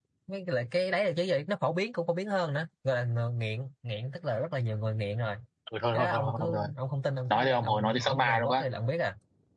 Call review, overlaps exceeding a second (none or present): present